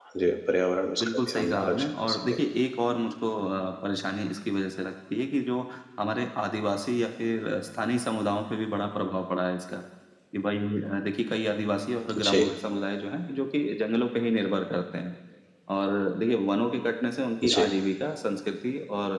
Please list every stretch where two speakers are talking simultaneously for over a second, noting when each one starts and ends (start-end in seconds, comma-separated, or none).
1.0-2.4